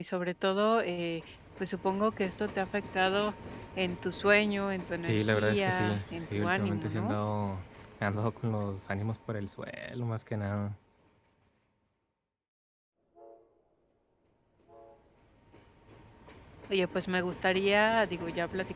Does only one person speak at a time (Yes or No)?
No